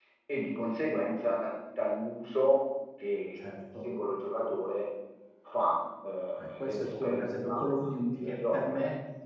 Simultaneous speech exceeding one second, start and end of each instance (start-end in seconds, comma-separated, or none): 6.4-8.6